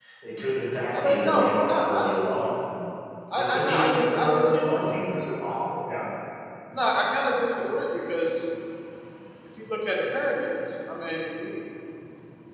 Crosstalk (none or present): present